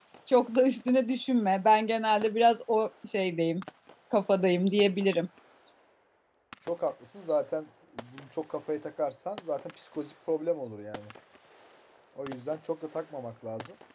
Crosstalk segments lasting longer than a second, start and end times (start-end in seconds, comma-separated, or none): none